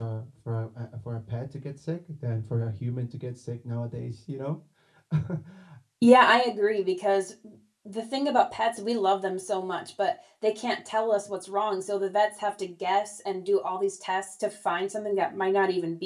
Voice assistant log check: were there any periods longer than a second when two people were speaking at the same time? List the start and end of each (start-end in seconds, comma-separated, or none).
none